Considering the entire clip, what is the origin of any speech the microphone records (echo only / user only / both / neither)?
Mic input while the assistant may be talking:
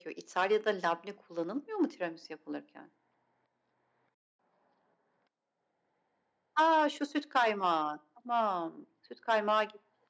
echo only